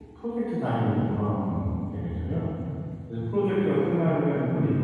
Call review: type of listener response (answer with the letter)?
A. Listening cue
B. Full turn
A